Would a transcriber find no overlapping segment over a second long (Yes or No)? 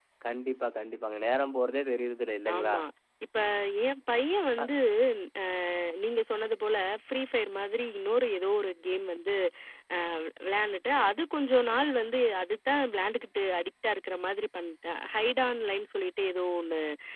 Yes